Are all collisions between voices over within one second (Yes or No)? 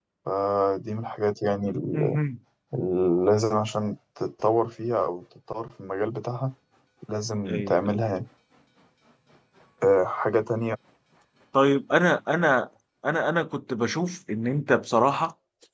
Yes